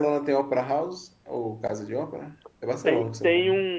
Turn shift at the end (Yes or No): Yes